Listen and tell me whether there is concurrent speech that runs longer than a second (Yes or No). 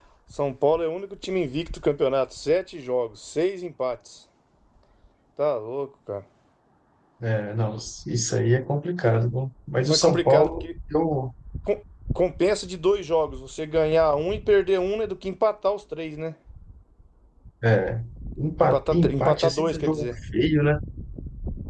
Yes